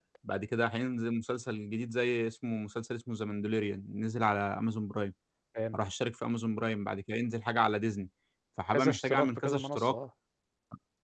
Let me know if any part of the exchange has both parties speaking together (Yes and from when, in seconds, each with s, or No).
Yes, from 8.7 s